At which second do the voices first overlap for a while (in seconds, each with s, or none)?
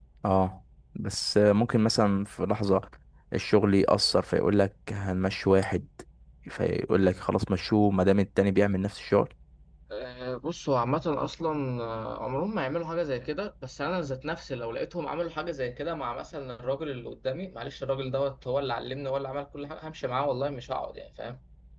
none